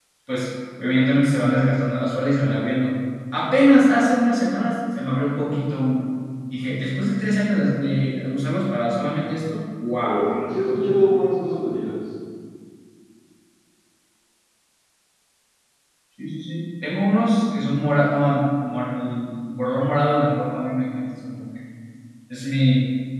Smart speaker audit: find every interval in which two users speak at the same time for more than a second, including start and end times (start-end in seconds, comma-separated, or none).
10.0-11.3